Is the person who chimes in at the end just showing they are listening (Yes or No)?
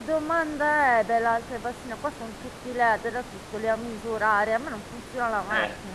No